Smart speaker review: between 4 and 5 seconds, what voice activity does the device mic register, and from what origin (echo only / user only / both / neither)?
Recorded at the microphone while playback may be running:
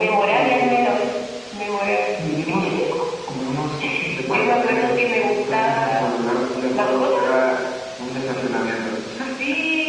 echo only